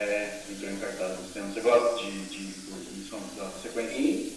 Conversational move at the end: taking over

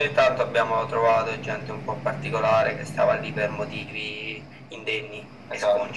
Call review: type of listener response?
taking over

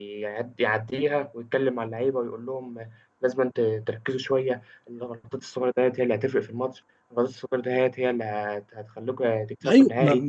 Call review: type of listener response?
taking over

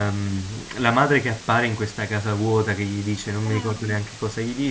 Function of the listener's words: listening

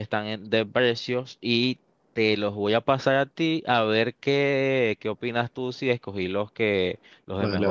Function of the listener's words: taking over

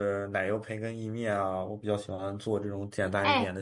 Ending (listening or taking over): taking over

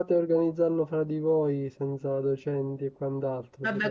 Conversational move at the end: taking over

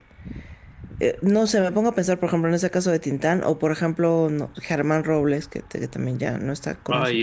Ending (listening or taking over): taking over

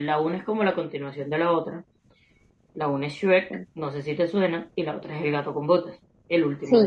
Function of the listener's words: taking over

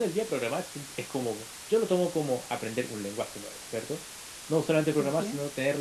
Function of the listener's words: listening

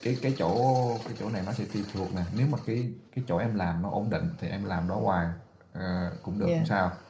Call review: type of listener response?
listening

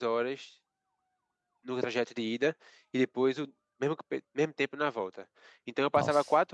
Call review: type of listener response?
listening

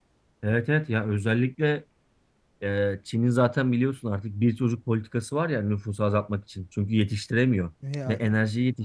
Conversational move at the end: listening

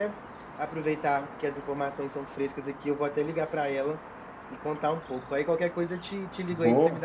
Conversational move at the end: taking over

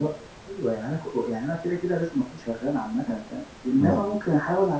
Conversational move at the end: listening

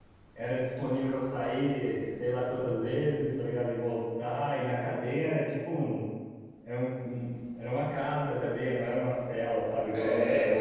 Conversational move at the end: taking over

